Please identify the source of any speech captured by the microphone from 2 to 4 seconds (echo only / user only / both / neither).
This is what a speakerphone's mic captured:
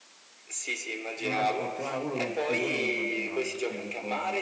both